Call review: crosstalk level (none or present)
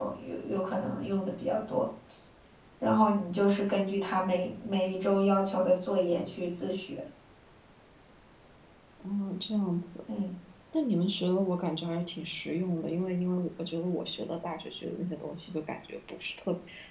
none